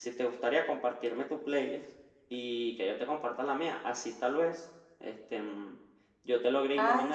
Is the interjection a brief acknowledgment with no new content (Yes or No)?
Yes